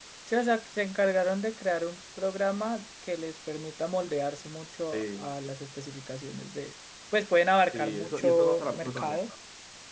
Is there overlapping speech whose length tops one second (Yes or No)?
Yes